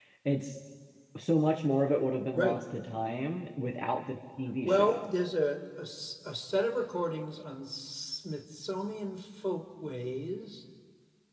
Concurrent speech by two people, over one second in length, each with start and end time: none

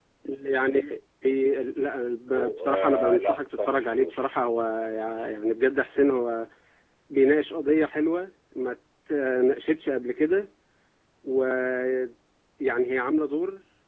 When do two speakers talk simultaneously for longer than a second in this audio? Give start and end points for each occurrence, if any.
2.3-4.2

